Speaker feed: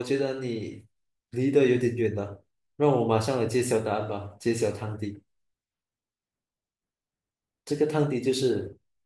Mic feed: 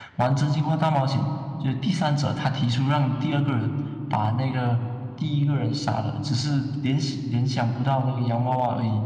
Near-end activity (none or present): present